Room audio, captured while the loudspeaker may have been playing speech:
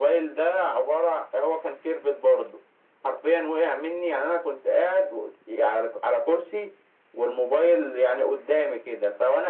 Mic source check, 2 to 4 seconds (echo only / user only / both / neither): echo only